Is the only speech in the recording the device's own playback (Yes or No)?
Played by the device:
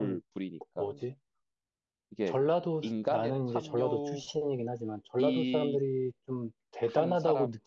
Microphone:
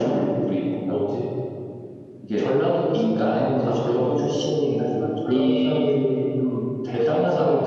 Yes